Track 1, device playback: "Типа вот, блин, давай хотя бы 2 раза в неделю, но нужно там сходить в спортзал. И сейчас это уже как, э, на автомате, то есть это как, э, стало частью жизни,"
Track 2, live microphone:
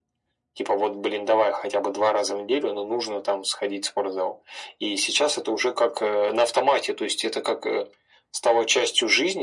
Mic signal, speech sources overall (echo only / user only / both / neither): echo only